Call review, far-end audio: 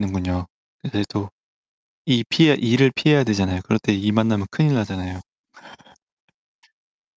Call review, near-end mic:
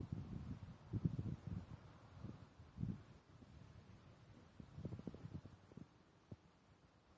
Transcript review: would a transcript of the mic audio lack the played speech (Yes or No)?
Yes